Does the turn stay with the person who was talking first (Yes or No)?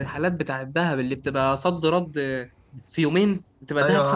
No